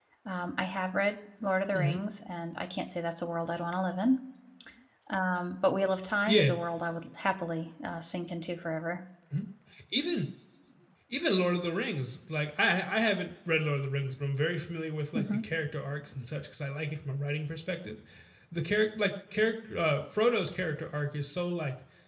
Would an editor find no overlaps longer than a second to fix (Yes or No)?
Yes